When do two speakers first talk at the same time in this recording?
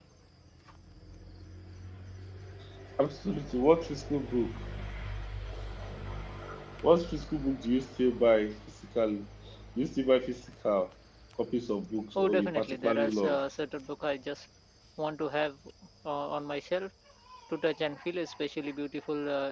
12.2 s

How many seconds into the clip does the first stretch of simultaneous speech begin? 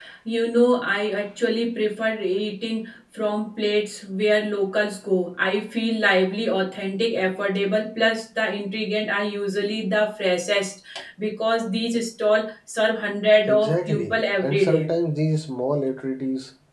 13.5 s

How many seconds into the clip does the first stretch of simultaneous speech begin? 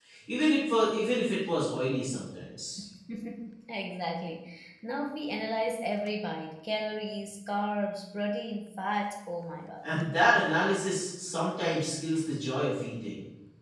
none

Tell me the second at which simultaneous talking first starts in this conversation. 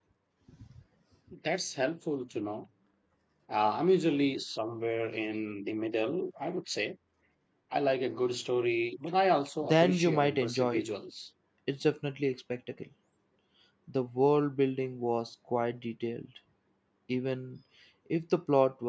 9.6 s

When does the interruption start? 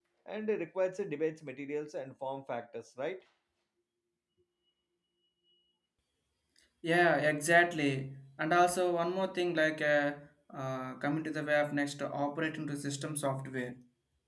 none

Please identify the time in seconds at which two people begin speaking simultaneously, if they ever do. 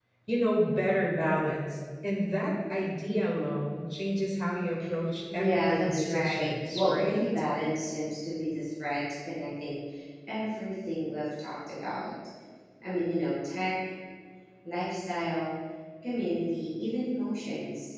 5.3 s

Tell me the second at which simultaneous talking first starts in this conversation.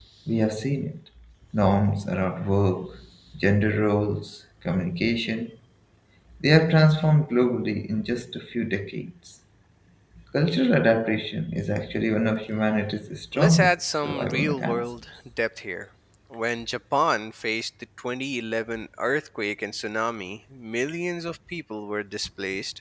13.3 s

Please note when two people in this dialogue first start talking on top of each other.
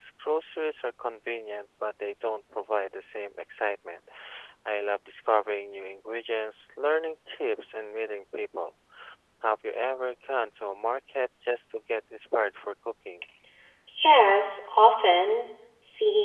none

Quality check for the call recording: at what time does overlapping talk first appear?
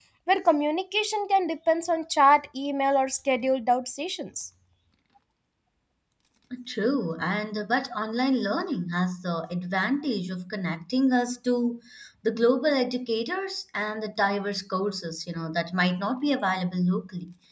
none

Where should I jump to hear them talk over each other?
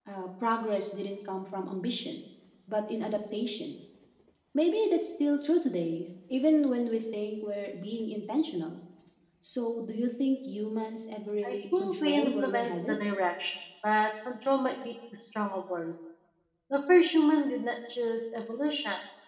11.4 s

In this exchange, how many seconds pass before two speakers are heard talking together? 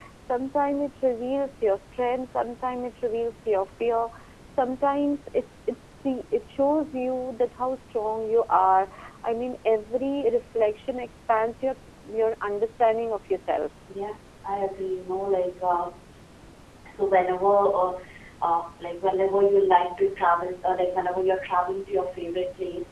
none

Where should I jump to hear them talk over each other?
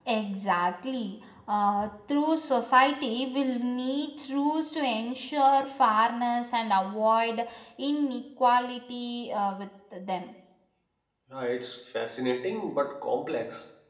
none

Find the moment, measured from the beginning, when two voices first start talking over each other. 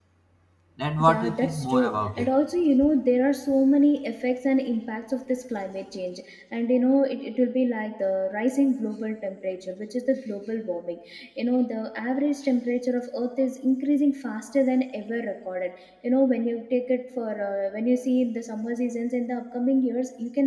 1.0 s

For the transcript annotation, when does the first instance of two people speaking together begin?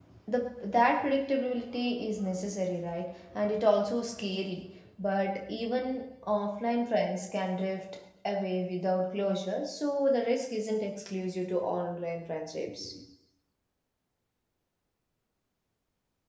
none

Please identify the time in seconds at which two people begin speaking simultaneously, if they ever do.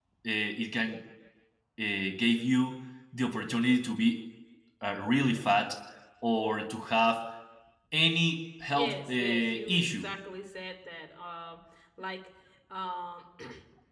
8.7 s

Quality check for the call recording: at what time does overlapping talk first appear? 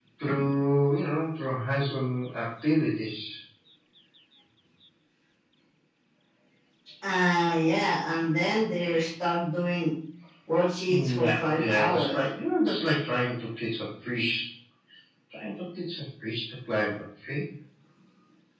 10.9 s

